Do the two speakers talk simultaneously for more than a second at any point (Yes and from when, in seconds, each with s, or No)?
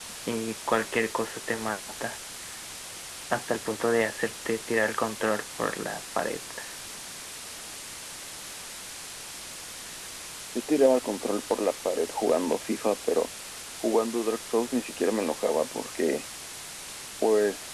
No